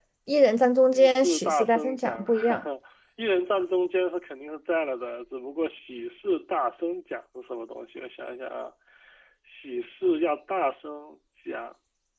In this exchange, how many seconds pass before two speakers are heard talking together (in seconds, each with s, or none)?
0.9 s